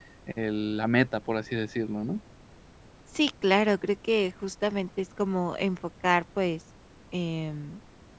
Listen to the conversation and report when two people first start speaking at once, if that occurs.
none

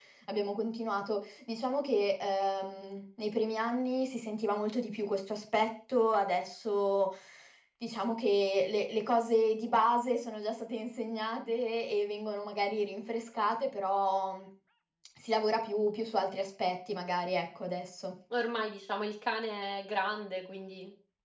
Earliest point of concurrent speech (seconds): none

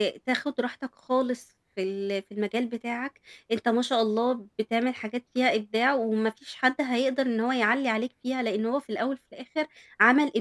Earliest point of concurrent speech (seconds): none

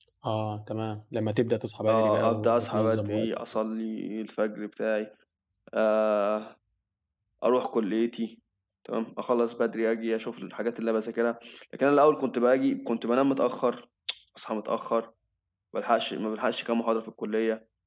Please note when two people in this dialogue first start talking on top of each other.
1.9 s

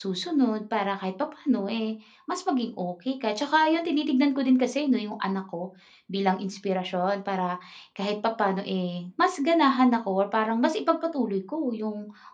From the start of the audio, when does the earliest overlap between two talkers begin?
none

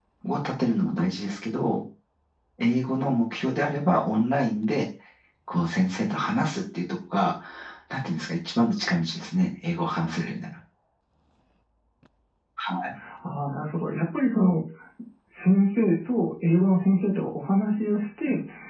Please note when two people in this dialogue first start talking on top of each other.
none

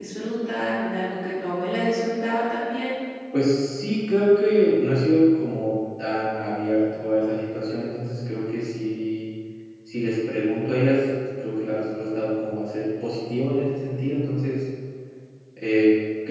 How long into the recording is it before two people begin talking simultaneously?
none

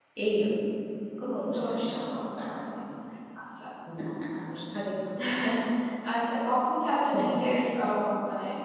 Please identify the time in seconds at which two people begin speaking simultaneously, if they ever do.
1.4 s

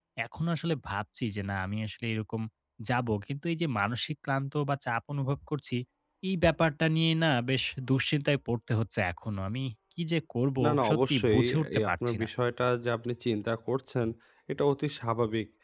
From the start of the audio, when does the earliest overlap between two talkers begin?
10.6 s

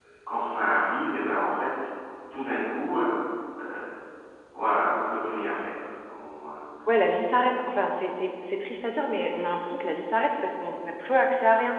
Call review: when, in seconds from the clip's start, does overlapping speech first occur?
none

